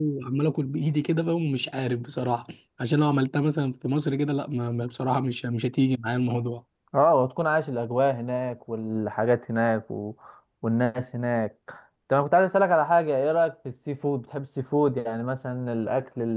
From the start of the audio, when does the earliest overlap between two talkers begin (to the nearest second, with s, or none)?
none